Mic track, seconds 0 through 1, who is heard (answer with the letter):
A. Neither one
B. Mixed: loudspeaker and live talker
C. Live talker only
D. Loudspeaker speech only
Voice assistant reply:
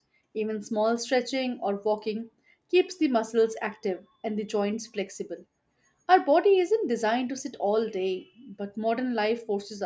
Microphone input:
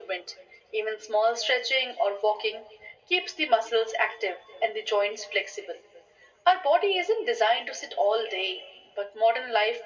D